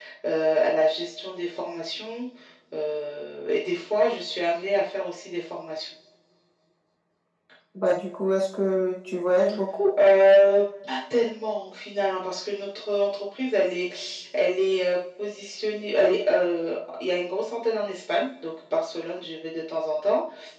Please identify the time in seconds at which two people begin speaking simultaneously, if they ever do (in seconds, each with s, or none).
none